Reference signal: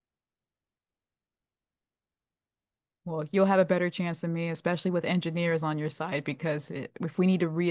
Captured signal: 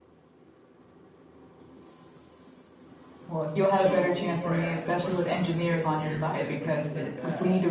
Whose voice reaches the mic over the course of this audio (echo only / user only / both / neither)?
both